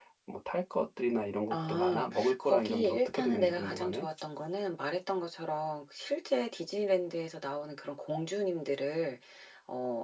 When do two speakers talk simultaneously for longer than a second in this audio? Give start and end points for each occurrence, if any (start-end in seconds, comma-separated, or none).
1.5-4.1